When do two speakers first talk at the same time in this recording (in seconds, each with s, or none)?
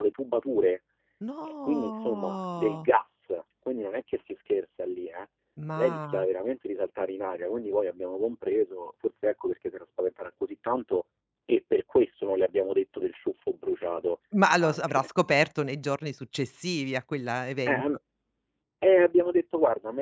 1.6 s